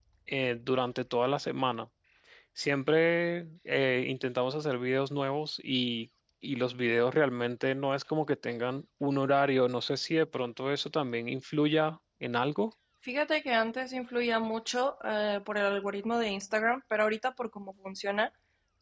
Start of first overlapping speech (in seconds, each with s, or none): none